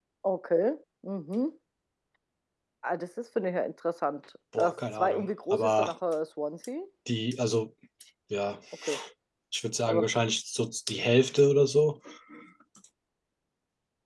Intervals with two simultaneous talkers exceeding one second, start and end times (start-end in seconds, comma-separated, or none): 4.6-5.9